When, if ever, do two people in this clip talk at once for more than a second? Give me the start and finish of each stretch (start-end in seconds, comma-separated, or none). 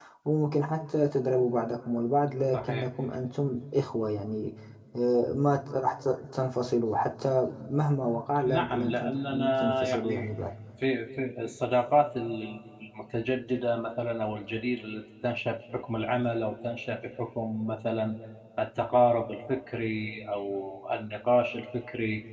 8.4-10.3